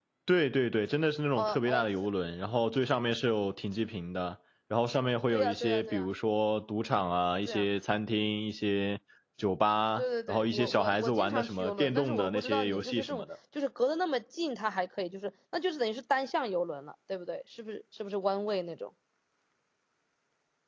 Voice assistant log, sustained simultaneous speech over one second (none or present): present